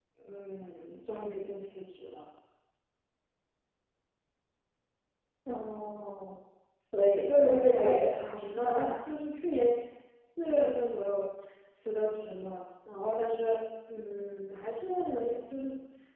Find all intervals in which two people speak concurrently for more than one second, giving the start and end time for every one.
7.3-9.0

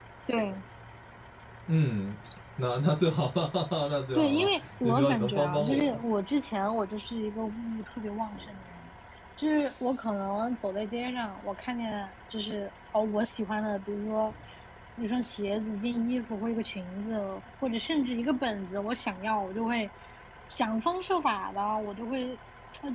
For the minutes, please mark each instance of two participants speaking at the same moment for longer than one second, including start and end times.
4.1-6.0

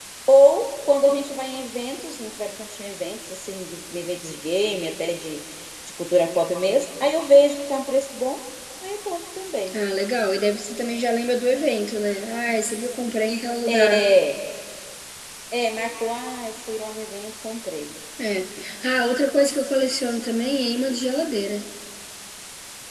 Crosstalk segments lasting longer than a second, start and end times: none

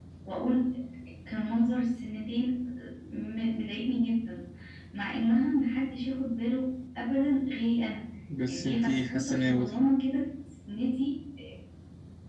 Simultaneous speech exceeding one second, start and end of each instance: 8.5-9.8

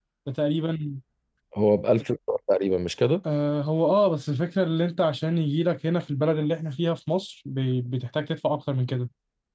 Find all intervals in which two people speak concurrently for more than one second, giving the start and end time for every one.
none

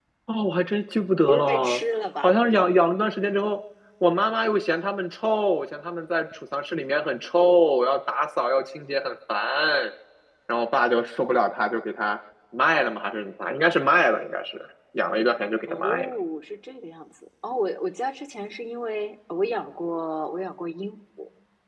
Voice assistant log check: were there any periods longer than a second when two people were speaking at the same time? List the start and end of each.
none

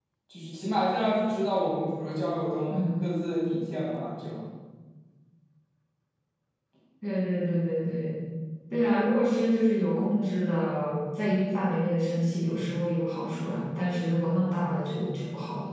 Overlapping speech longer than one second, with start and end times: none

